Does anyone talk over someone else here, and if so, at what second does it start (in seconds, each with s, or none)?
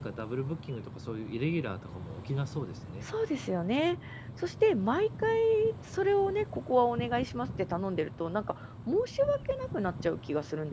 none